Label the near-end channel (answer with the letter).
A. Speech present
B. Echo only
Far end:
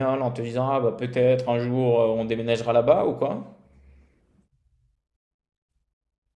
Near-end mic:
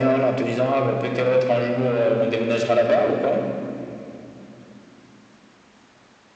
B